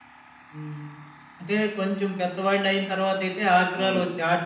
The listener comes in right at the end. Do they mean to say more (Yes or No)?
No